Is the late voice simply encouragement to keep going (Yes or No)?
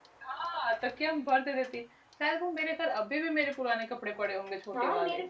No